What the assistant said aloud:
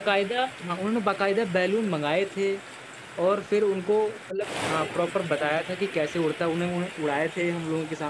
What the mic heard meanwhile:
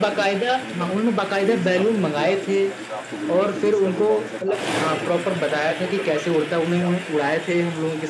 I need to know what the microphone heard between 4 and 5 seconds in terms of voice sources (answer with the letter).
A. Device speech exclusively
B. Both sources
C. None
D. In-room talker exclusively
B